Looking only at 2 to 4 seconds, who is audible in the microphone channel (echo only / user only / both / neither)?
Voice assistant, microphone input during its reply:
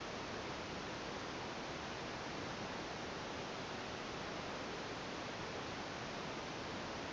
neither